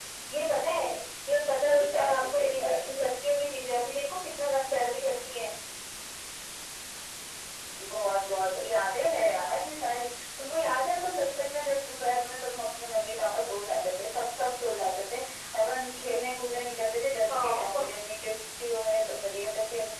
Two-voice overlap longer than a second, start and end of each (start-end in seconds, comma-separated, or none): 1.7-2.9